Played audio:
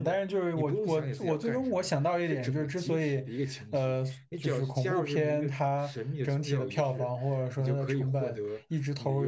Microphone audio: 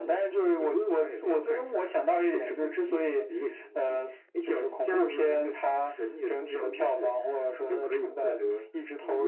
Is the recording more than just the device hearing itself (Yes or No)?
No